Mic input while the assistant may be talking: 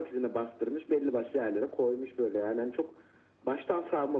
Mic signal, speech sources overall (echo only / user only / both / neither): echo only